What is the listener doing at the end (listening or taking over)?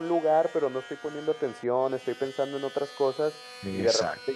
listening